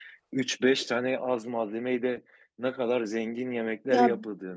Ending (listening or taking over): listening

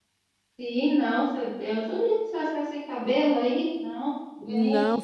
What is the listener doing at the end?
taking over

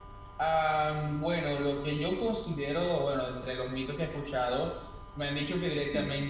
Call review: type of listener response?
listening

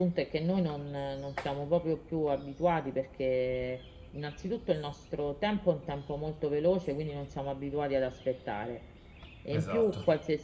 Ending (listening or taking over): listening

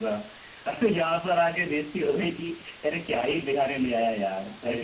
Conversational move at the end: taking over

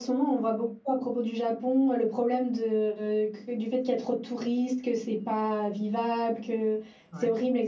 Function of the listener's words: listening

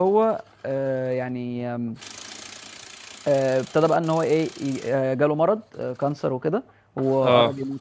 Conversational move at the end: listening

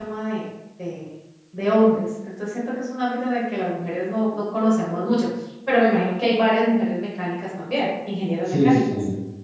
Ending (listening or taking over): taking over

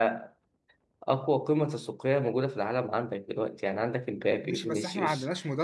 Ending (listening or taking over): taking over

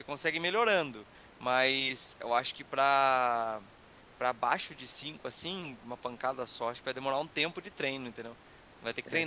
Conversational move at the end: listening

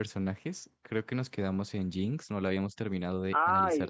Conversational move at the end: taking over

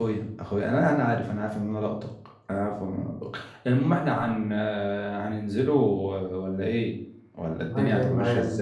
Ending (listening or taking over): taking over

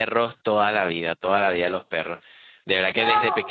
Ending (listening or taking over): listening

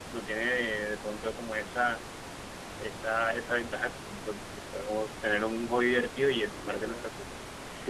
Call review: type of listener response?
taking over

